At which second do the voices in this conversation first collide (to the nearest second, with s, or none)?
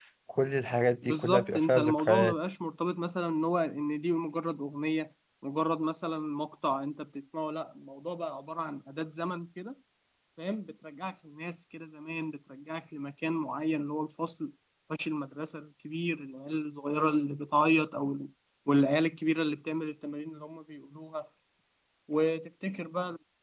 1 s